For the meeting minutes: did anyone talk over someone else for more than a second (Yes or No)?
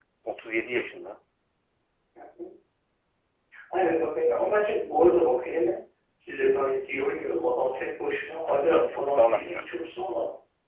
Yes